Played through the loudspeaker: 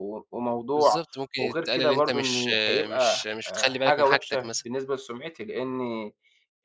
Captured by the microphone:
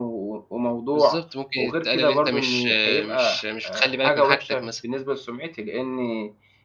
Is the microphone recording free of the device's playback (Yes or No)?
No